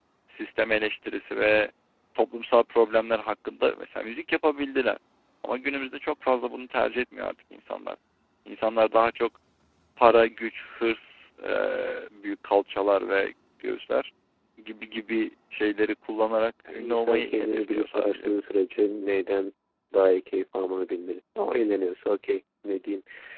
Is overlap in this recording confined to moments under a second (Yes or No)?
No